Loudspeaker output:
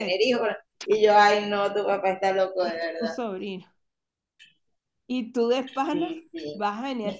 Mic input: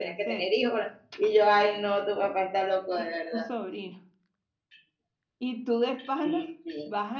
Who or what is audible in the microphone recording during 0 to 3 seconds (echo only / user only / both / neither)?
echo only